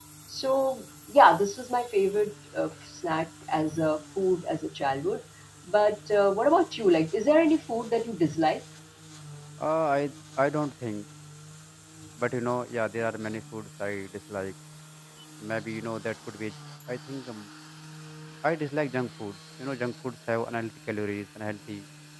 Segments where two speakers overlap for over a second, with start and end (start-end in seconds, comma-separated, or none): none